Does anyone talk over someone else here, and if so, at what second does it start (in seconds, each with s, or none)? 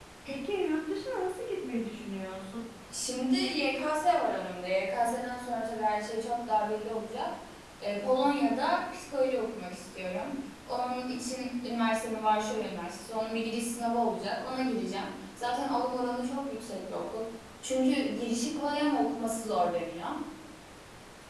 none